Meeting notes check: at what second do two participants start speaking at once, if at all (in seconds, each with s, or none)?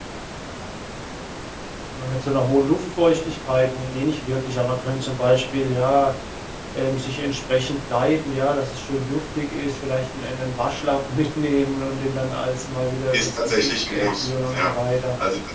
13.1 s